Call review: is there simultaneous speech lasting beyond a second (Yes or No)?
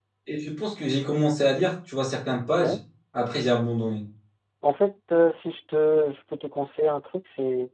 No